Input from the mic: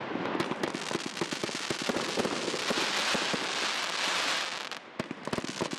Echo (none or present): none